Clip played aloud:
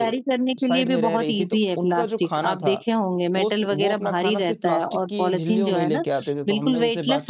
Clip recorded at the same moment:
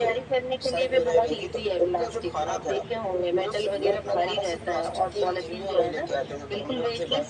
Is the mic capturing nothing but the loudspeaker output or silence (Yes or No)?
Yes